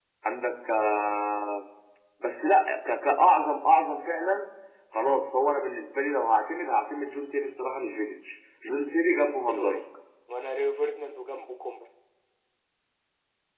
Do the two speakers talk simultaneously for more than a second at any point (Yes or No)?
No